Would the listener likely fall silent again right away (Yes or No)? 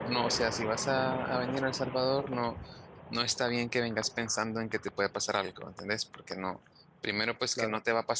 Yes